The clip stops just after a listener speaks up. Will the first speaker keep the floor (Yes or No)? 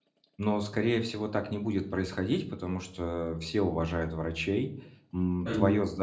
Yes